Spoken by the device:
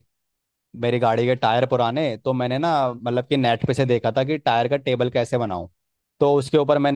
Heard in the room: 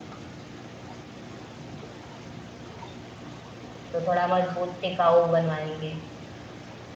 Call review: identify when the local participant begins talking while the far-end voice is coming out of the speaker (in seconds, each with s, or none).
3.9 s